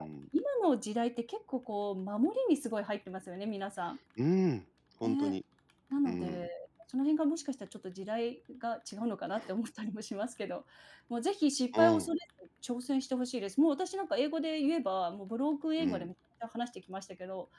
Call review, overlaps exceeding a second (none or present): none